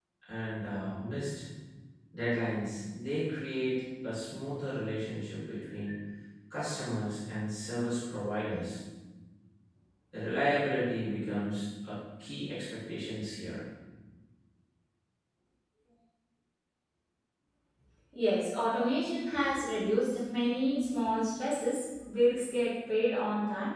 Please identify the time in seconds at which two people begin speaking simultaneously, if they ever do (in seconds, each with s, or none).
none